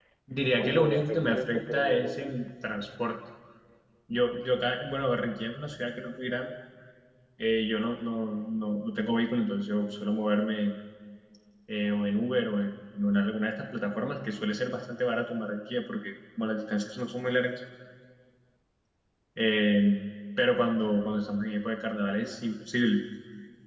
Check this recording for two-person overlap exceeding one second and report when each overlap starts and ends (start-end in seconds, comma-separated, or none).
0.6-2.4